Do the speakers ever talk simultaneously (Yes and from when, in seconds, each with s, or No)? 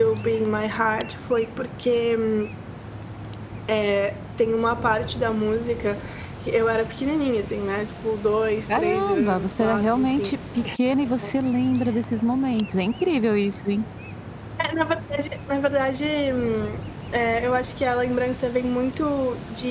Yes, from 8.7 s